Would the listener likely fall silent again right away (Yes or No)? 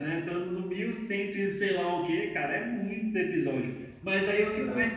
Yes